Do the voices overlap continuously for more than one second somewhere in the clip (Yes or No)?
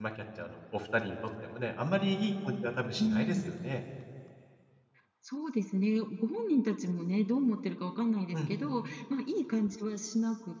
No